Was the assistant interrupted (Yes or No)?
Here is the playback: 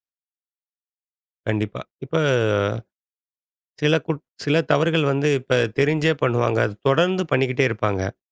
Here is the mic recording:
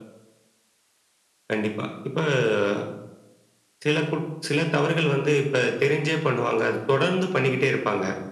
No